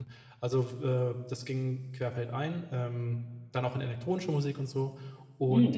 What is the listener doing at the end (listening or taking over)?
listening